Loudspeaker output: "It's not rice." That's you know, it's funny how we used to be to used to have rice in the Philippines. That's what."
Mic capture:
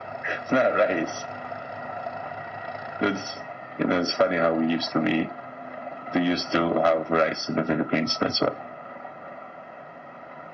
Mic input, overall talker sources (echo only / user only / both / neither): echo only